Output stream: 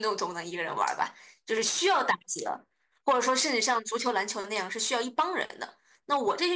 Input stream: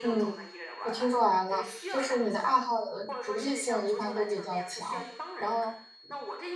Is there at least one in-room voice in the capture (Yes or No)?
Yes